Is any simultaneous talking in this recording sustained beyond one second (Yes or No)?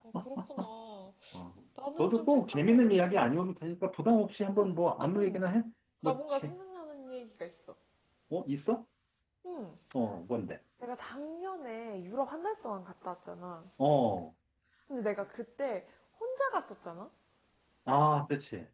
Yes